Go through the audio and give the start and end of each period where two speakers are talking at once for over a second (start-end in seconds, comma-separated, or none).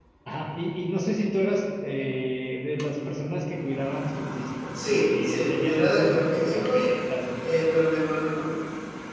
4.7-6.9